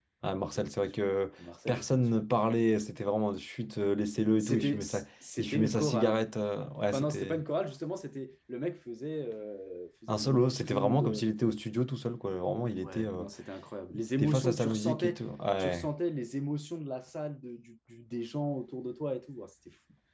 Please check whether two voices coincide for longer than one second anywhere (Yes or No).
Yes